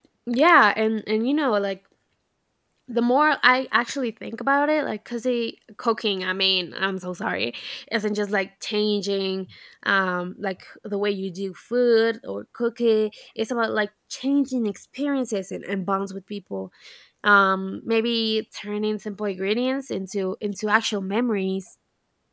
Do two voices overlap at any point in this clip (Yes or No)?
No